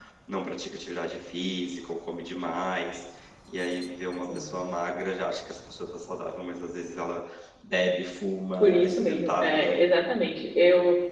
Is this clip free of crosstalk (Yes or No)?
No